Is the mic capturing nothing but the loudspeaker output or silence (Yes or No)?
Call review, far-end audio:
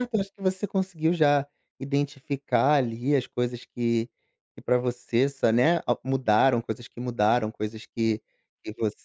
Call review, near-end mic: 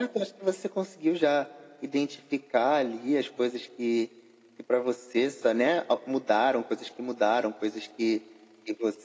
Yes